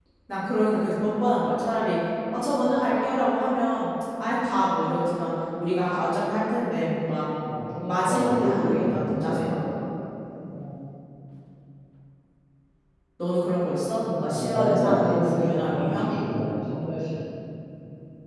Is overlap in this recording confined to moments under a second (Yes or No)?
No